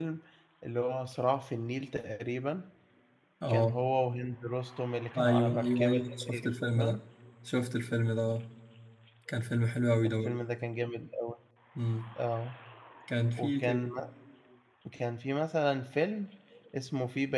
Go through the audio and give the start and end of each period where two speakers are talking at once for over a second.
5.2-7.0

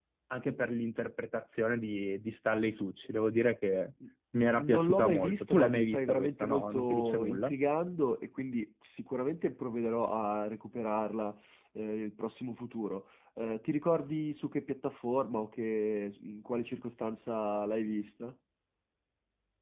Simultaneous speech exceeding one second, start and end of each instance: 4.6-7.5

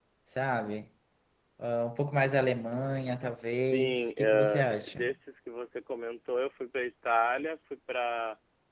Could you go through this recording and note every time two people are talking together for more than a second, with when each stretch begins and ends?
3.7-5.1

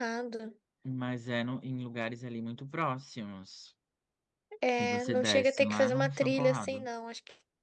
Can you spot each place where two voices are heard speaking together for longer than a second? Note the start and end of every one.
4.8-6.8

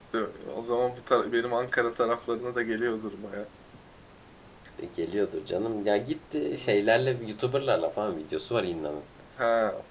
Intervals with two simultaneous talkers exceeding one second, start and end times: none

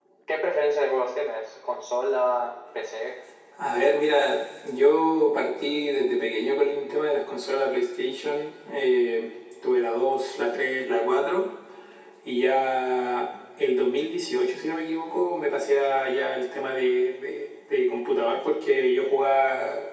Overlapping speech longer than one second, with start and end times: none

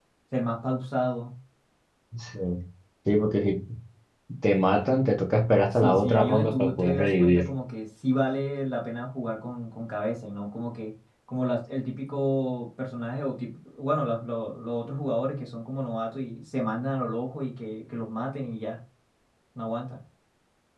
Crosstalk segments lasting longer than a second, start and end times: 5.7-7.4

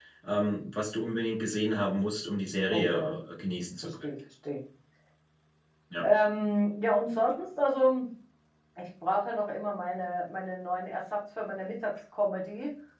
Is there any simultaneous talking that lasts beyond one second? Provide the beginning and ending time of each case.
none

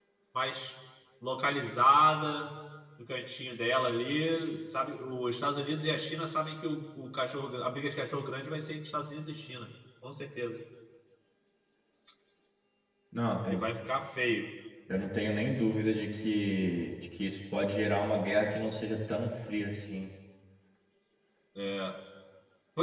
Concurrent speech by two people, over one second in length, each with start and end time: none

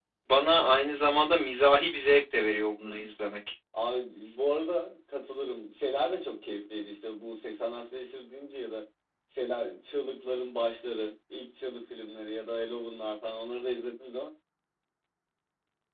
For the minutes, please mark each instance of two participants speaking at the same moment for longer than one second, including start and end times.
none

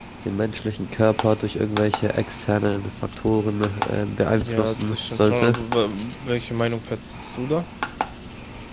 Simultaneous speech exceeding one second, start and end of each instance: 4.3-5.6

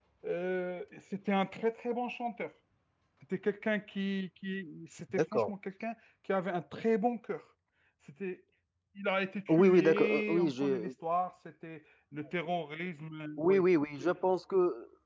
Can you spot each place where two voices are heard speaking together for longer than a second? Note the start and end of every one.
9.5-10.9

